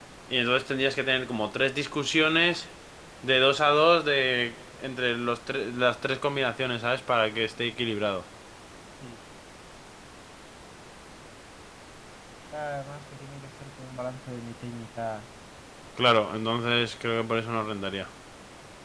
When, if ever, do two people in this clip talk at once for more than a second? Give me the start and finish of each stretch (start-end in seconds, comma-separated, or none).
none